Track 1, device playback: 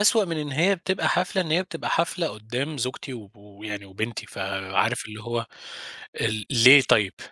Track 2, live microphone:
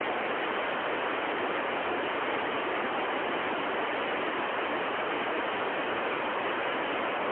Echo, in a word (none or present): none